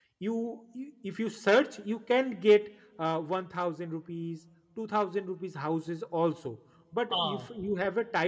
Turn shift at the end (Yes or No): No